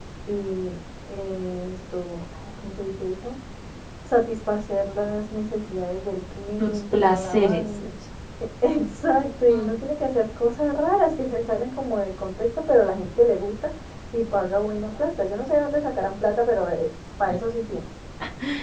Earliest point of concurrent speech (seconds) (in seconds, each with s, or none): 6.6 s